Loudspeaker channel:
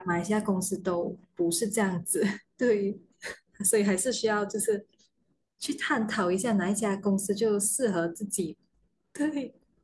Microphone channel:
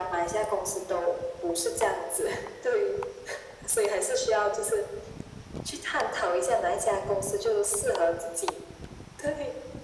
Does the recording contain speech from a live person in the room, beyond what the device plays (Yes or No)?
No